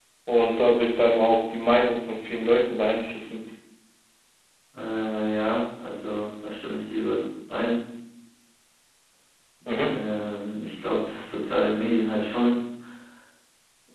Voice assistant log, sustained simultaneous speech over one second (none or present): none